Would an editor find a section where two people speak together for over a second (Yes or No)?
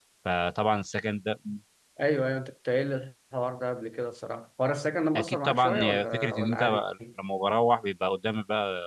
Yes